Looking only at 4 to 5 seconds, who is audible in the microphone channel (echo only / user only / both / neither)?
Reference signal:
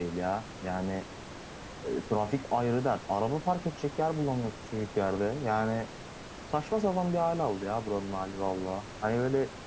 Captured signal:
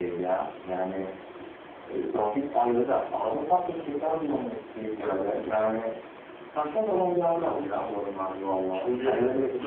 echo only